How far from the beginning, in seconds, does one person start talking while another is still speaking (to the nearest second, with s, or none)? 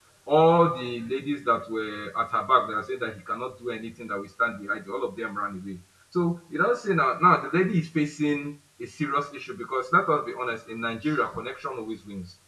none